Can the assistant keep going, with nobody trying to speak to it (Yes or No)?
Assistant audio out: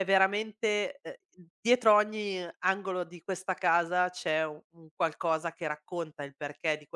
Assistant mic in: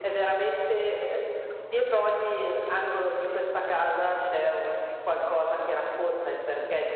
Yes